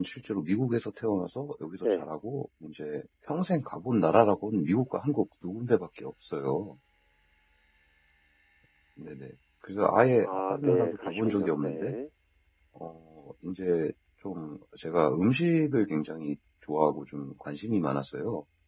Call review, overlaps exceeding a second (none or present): present